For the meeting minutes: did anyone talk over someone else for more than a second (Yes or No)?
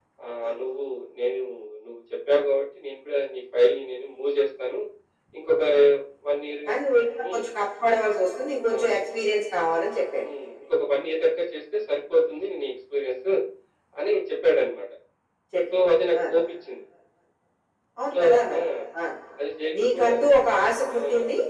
No